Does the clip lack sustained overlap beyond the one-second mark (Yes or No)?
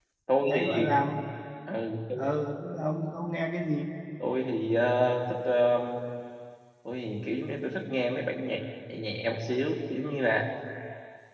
Yes